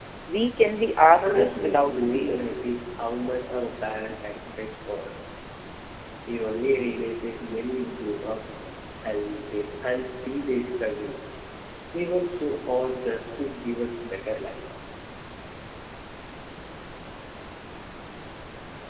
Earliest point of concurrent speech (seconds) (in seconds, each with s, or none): 1.1 s